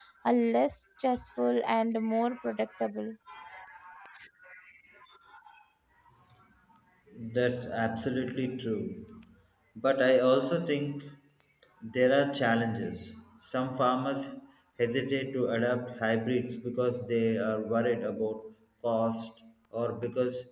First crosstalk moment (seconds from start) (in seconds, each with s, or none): none